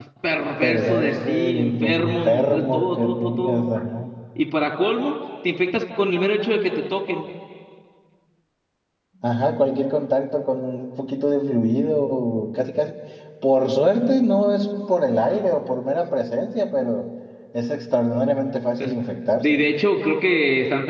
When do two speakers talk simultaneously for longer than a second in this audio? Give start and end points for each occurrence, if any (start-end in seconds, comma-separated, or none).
0.6-3.6